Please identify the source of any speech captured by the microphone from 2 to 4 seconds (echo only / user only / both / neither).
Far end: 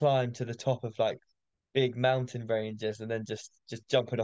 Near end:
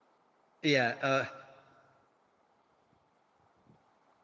neither